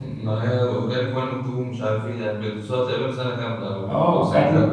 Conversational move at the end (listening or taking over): taking over